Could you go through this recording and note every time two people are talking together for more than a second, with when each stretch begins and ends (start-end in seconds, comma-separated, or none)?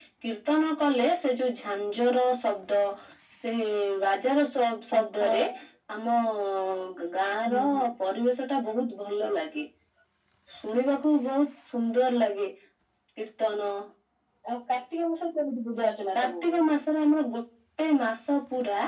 none